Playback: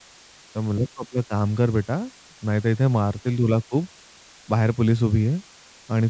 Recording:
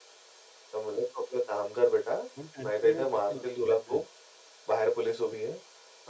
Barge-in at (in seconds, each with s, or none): 2.4 s